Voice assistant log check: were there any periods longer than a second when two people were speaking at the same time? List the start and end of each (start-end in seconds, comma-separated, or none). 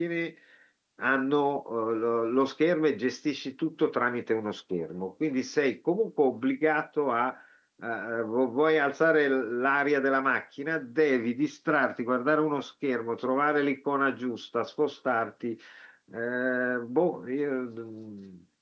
none